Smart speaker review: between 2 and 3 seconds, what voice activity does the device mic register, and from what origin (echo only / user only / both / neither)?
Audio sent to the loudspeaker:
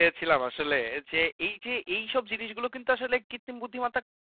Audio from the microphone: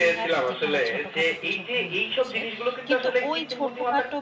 both